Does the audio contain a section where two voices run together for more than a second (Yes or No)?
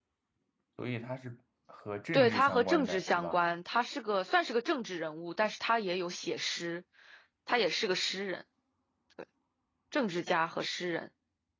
Yes